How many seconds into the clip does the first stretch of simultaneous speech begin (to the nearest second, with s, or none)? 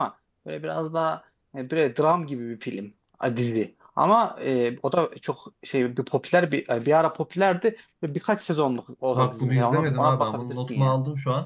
9 s